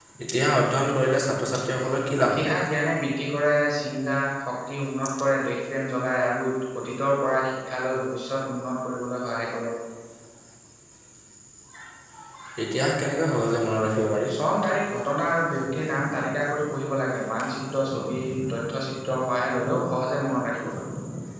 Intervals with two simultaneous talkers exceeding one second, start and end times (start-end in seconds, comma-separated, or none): none